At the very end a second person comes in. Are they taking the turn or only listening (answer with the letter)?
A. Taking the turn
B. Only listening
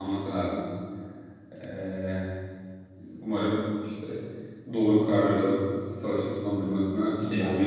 A